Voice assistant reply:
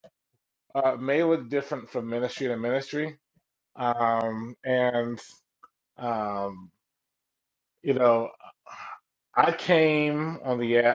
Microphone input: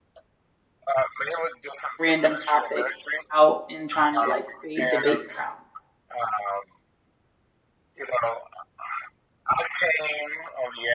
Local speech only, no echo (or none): random topics out and trying to like create debates around.